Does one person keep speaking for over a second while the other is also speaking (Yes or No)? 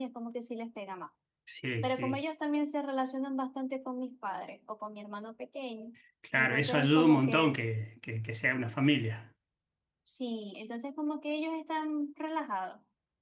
Yes